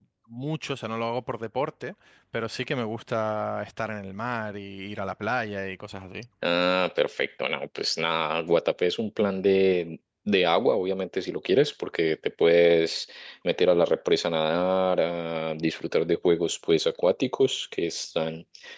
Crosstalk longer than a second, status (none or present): none